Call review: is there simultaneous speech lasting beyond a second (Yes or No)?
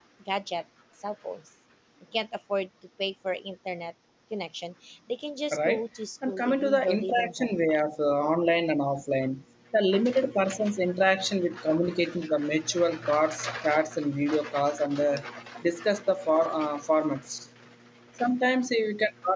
Yes